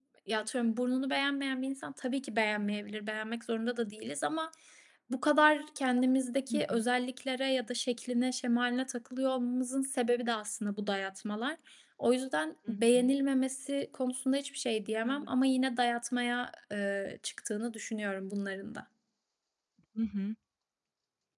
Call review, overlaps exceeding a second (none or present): none